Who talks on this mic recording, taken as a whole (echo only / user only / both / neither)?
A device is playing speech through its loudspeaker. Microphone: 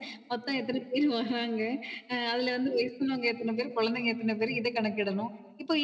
echo only